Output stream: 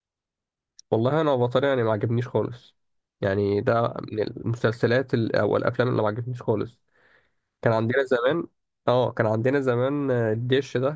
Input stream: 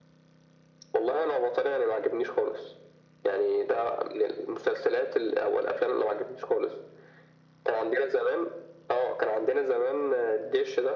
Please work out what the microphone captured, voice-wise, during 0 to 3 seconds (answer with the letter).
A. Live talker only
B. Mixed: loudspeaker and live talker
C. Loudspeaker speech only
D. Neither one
C